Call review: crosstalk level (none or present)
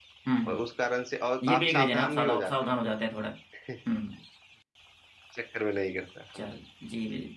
present